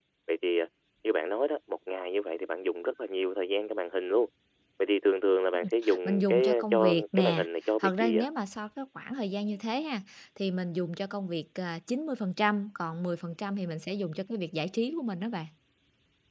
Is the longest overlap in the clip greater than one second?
Yes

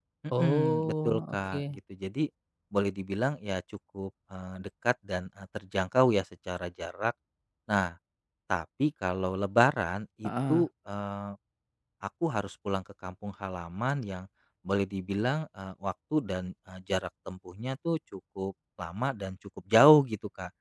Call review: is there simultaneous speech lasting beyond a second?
Yes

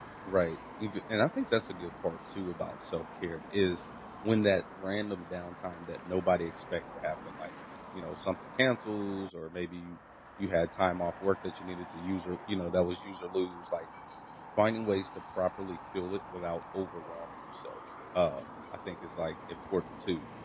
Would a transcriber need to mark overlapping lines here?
No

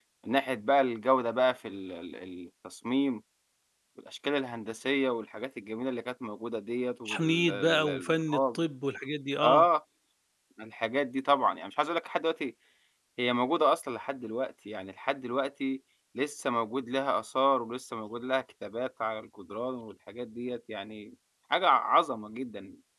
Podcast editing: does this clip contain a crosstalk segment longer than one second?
Yes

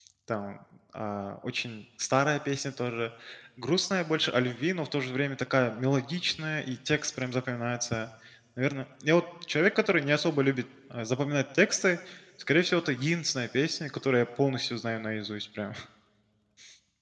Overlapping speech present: No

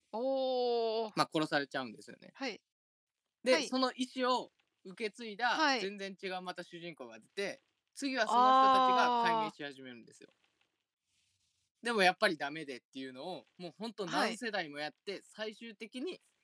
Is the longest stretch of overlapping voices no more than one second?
No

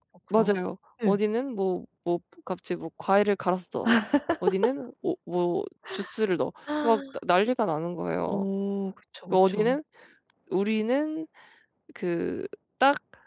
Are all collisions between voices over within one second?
Yes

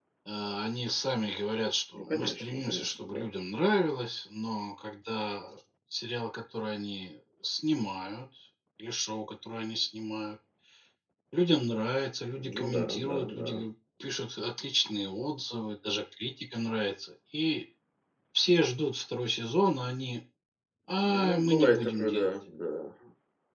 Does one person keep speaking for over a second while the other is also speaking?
Yes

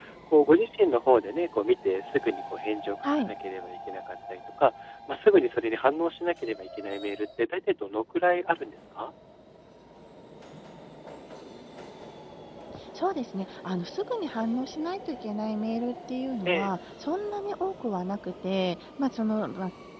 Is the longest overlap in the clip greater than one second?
No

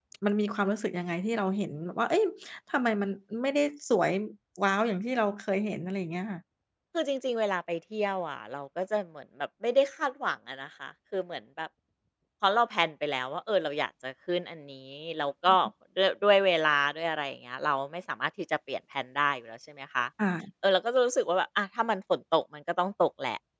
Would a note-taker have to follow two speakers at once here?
No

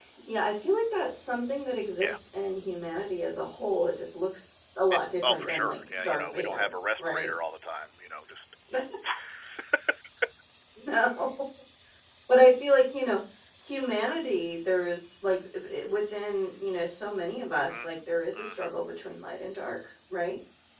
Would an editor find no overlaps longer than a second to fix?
No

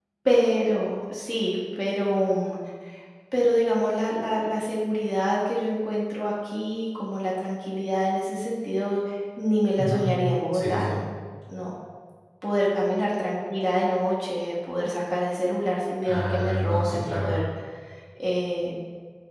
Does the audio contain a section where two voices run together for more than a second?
Yes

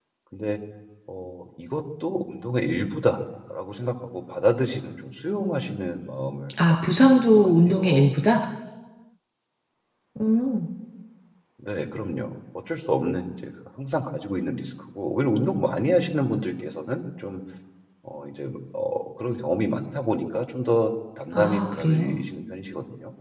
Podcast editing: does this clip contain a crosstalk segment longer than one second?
Yes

